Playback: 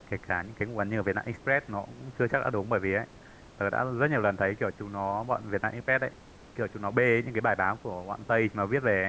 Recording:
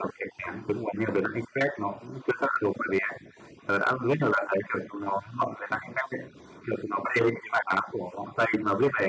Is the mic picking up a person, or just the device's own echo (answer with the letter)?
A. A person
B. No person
B